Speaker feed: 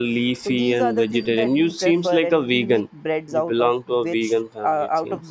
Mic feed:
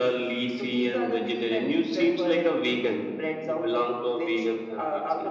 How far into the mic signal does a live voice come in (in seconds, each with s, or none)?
none